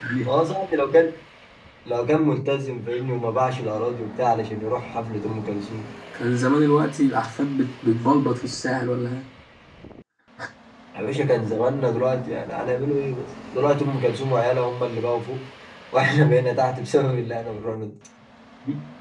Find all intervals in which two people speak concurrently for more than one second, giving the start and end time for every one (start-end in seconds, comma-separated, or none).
none